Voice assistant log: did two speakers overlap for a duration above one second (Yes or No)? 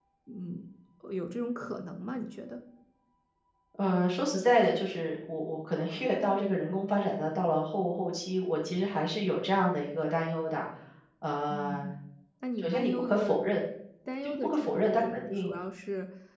Yes